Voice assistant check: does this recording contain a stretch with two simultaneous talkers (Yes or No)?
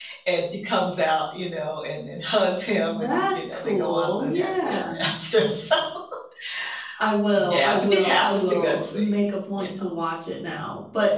Yes